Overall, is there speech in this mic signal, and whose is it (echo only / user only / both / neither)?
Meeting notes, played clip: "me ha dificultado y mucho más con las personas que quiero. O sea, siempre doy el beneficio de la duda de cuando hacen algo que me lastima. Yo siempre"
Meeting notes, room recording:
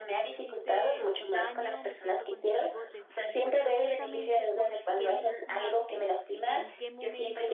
both